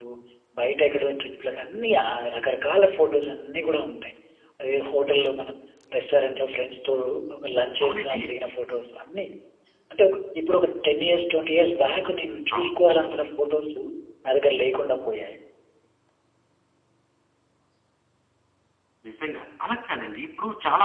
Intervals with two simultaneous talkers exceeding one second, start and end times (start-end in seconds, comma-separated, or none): none